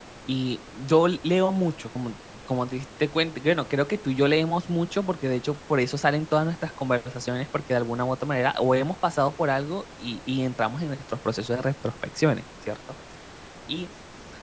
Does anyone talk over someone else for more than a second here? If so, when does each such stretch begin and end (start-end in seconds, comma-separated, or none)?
none